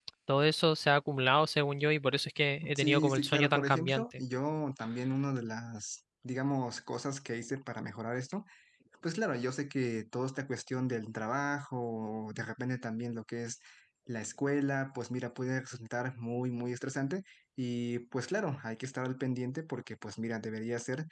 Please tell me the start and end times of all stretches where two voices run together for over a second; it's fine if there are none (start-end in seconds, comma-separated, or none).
2.8-4.0